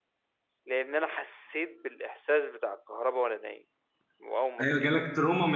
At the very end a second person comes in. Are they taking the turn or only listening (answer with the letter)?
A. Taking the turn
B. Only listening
A